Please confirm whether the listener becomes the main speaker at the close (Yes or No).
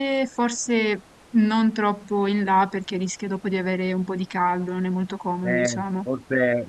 Yes